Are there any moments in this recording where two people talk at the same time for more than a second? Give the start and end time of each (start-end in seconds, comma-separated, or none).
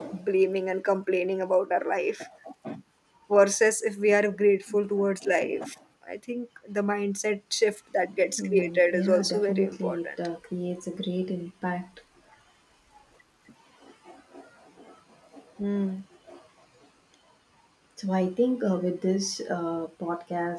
8.4-10.1